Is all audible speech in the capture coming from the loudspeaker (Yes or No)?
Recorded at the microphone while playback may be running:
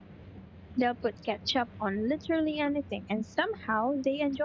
No